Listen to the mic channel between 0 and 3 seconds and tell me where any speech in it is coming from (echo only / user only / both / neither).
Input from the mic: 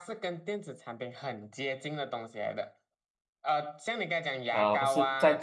echo only